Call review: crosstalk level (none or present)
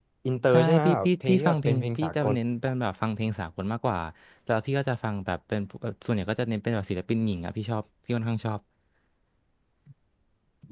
present